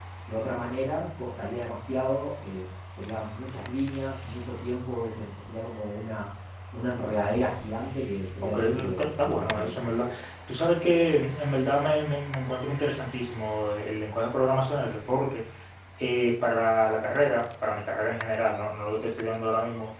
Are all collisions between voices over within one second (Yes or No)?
No